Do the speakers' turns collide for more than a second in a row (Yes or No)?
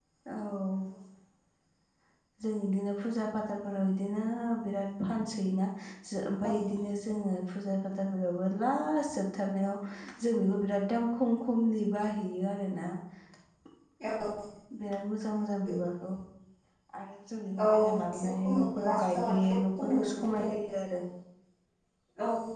Yes